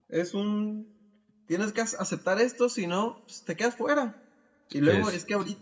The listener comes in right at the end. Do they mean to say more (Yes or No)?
No